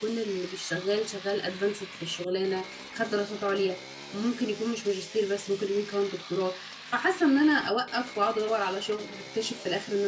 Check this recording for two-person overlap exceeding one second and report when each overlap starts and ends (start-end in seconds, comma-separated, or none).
none